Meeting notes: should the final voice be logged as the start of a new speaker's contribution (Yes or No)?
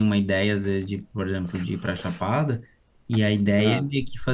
No